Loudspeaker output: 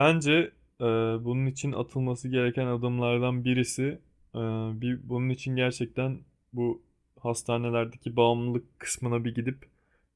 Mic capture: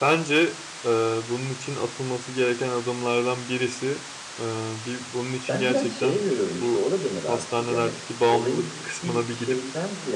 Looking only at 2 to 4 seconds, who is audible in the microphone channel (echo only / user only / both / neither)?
echo only